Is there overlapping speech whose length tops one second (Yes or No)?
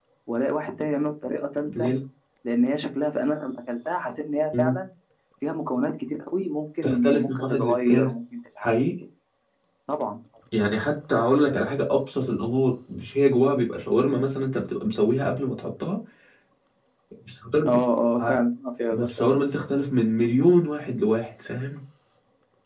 Yes